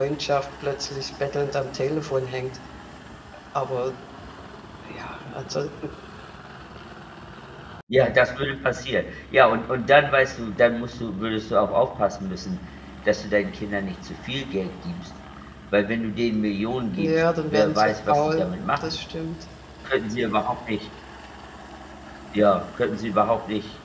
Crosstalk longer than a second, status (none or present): present